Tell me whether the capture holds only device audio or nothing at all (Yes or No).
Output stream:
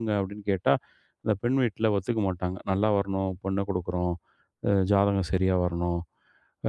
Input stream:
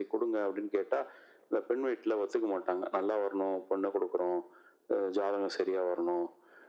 Yes